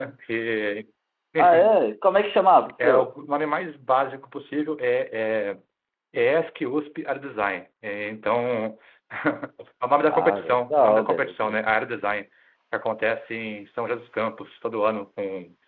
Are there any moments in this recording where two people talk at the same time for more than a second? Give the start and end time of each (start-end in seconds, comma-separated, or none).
10.1-11.6